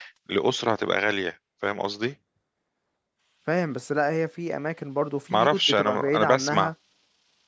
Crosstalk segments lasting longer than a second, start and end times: 5.3-6.7

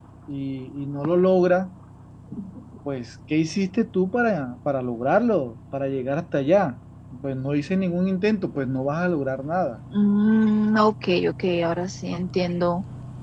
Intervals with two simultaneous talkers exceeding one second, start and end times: none

